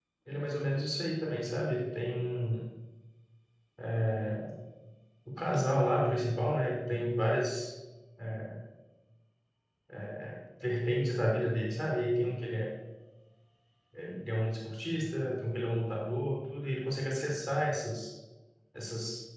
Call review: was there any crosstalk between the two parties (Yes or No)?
No